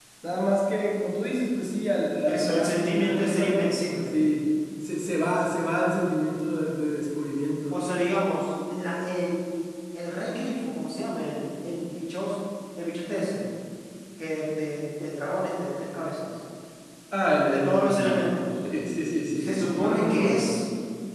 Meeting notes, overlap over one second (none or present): present